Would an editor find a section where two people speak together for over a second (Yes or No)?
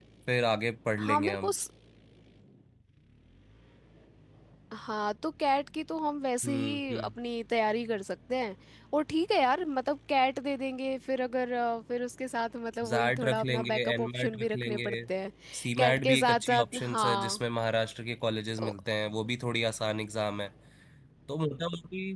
Yes